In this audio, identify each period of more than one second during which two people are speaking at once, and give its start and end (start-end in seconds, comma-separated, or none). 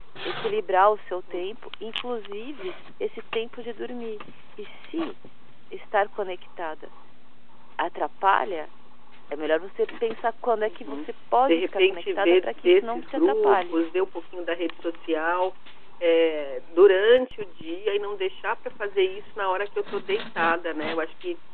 11.5-13.8